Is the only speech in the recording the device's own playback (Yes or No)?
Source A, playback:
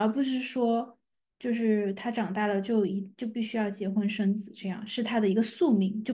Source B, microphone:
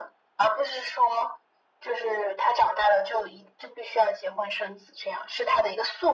Yes